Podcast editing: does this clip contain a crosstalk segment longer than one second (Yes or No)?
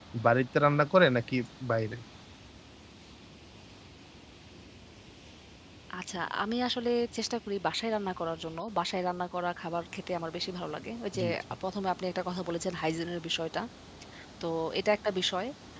No